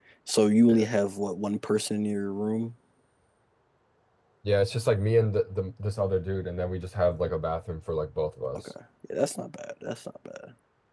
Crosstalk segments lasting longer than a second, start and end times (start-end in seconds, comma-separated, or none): none